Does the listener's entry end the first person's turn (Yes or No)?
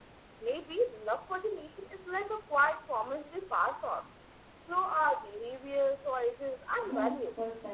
Yes